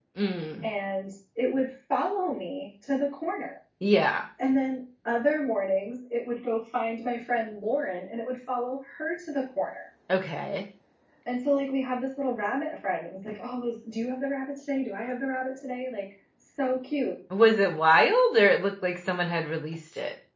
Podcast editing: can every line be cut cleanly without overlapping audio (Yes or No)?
Yes